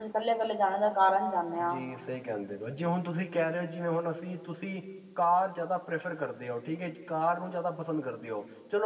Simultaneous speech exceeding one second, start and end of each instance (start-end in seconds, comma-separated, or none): none